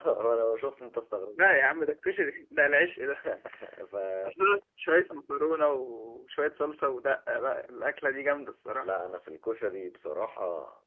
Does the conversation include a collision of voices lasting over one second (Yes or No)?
No